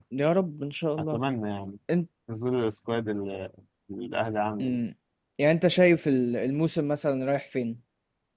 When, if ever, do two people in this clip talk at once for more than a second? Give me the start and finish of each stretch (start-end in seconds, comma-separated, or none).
none